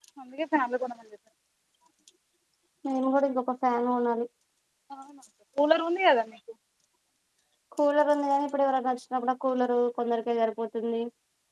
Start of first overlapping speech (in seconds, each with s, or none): none